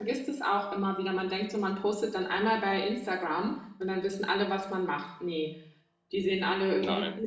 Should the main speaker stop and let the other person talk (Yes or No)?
No